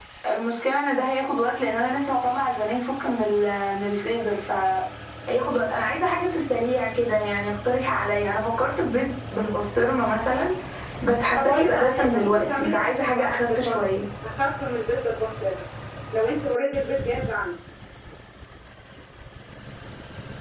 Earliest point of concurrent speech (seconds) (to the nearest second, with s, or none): 11 s